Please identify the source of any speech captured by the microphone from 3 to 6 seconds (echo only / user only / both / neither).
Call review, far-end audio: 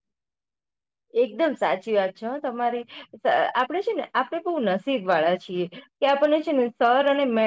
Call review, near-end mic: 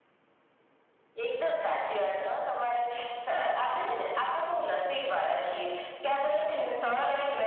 echo only